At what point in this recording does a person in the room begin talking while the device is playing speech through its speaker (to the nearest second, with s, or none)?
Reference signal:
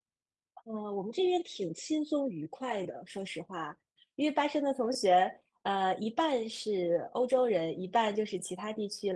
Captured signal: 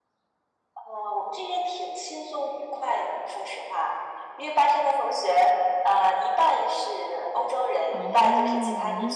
8 s